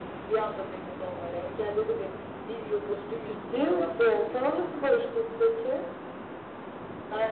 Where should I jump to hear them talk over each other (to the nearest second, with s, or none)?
3 s